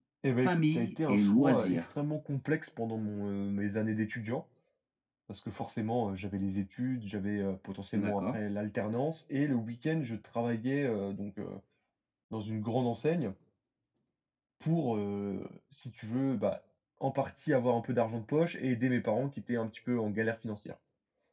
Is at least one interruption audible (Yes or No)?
Yes